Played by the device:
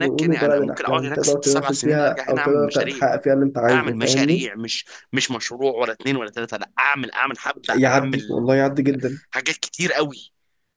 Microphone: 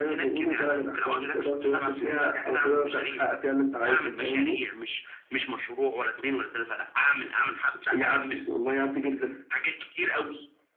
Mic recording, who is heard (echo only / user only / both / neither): echo only